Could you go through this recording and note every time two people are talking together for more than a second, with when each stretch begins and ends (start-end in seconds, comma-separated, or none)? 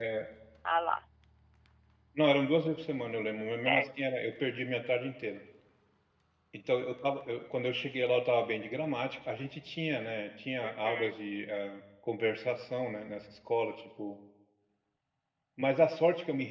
none